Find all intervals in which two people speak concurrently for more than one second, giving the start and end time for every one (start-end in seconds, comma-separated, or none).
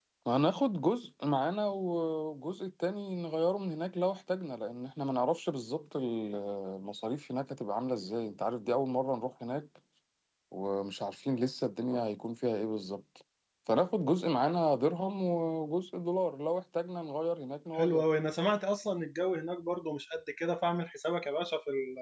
none